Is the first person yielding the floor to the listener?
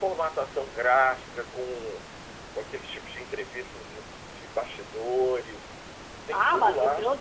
Yes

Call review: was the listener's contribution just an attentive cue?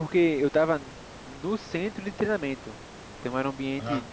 Yes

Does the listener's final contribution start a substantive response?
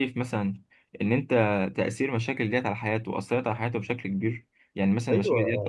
Yes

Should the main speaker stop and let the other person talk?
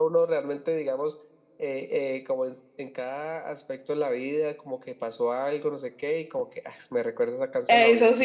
Yes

